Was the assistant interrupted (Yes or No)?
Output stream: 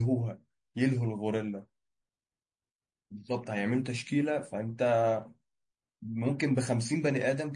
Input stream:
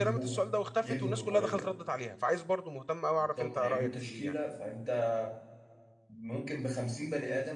Yes